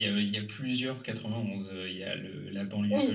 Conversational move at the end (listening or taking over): listening